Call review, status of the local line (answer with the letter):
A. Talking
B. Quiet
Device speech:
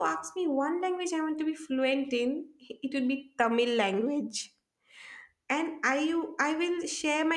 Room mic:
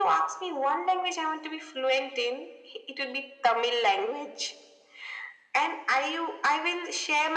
B